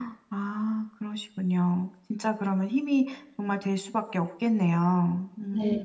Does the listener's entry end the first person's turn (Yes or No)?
Yes